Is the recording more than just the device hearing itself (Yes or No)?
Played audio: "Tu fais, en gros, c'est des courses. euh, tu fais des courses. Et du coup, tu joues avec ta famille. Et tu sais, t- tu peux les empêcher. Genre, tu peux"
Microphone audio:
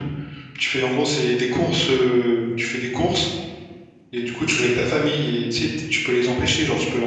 No